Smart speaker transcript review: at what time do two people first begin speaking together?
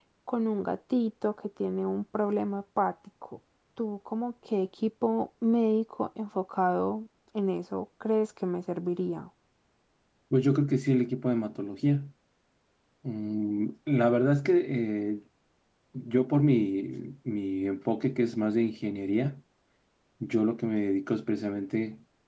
none

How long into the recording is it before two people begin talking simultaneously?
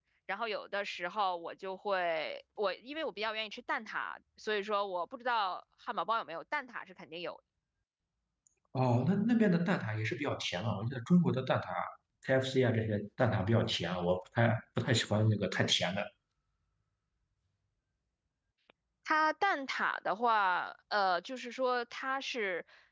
none

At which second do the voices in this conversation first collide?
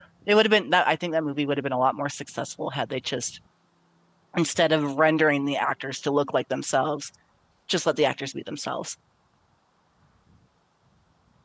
none

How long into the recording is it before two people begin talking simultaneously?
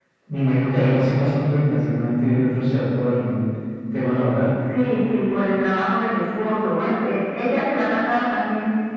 none

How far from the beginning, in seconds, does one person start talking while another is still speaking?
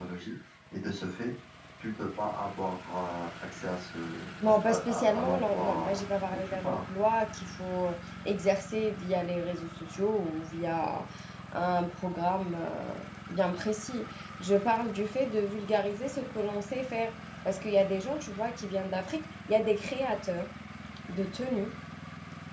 4 s

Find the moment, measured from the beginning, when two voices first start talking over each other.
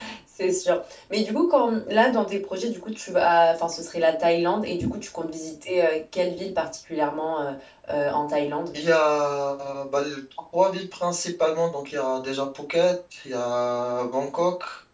none

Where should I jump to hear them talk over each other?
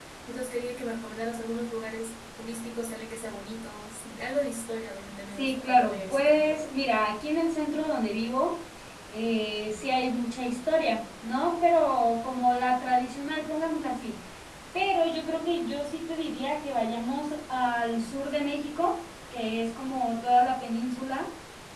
5 s

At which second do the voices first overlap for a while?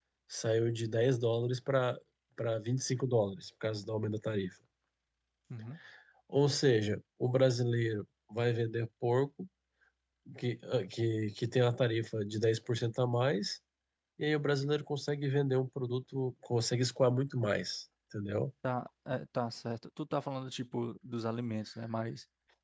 none

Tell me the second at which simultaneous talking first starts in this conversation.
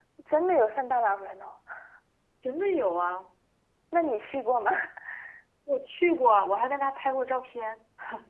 none

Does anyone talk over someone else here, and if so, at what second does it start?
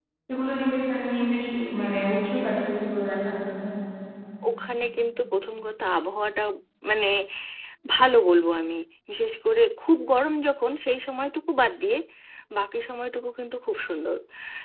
none

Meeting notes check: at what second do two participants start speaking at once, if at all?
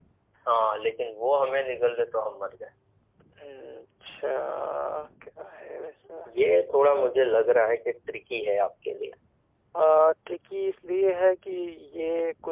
none

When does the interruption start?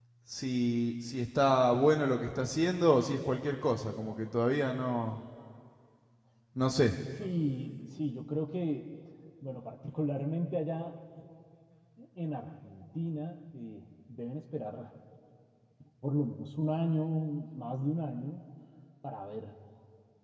none

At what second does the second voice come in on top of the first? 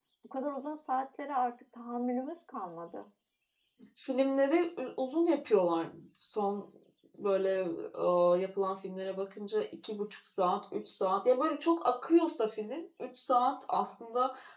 none

